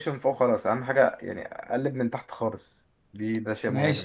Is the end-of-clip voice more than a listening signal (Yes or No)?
Yes